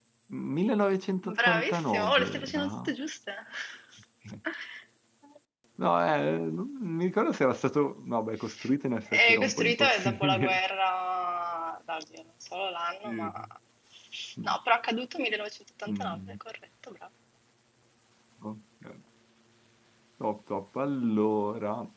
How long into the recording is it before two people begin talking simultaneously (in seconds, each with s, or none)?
1.2 s